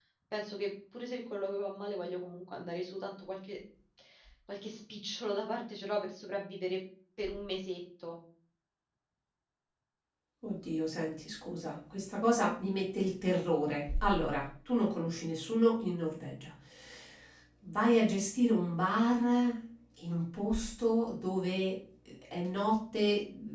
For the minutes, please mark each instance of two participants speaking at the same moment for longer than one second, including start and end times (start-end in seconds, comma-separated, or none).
none